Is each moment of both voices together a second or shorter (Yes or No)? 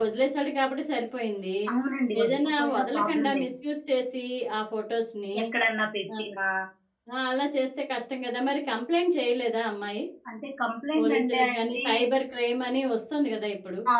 No